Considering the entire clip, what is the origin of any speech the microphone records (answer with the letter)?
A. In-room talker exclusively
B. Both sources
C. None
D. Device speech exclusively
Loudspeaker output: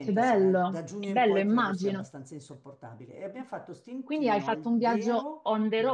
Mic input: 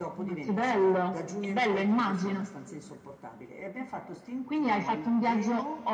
D